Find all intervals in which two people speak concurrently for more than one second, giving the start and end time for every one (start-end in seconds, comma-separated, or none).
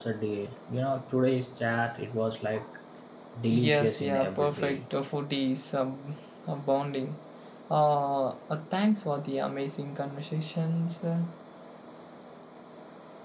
3.6-4.8